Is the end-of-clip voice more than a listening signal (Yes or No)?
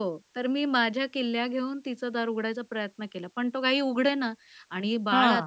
No